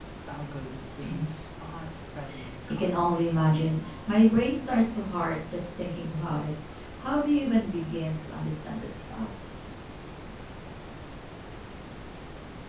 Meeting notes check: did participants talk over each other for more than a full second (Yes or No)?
No